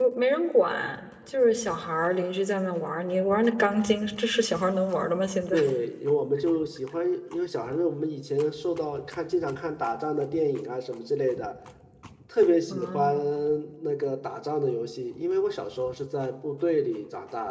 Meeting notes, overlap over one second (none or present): none